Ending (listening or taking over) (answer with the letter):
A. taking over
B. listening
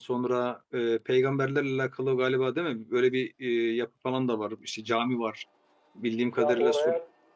A